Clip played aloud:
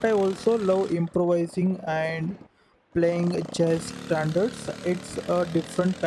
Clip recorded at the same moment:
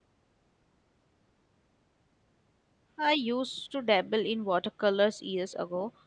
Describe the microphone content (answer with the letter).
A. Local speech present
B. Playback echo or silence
A